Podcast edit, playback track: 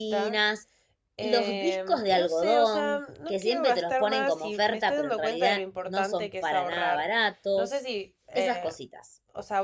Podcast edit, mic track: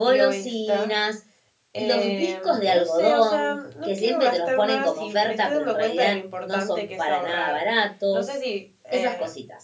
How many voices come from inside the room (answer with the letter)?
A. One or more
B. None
B